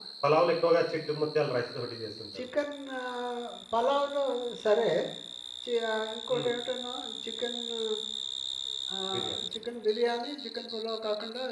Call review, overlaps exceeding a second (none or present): none